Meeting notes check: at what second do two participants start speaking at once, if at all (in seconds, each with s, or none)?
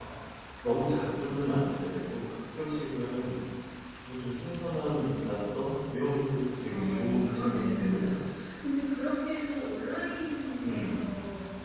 6.7 s